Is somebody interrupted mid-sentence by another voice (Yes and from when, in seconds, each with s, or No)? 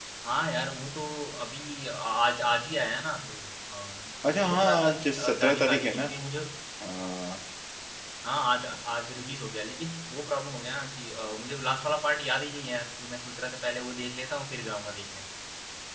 Yes, from 4.2 s